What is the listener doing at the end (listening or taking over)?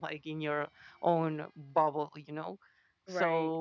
listening